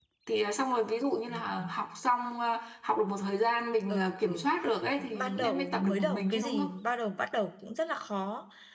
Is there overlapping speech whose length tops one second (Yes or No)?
Yes